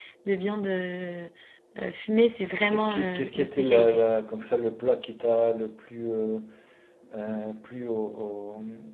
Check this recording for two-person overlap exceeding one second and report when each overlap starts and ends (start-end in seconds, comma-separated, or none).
2.7-4.0